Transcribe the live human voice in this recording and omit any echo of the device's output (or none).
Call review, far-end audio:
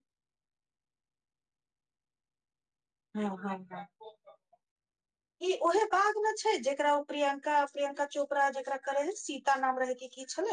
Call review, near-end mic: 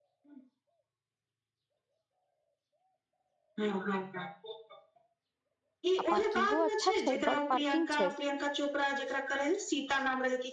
आ पार्किंगो अच्छा छै बड पार्किंग छै